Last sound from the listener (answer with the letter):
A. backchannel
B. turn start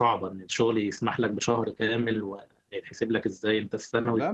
B